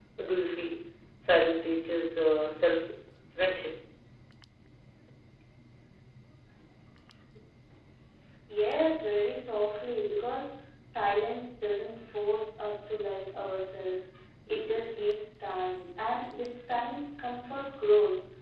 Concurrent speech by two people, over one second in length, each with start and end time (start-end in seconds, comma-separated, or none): none